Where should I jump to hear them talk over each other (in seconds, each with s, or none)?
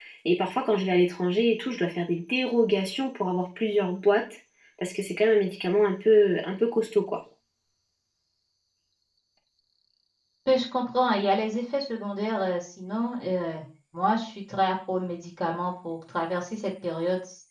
none